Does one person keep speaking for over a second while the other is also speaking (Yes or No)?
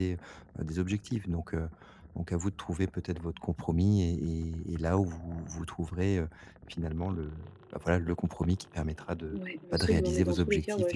Yes